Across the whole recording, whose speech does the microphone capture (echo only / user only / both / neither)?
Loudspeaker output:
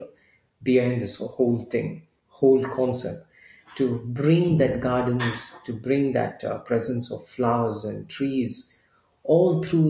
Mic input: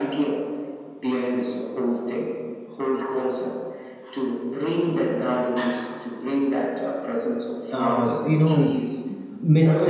both